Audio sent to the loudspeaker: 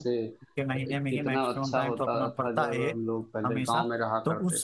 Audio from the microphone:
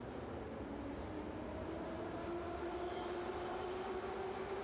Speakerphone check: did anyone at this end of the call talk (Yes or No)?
No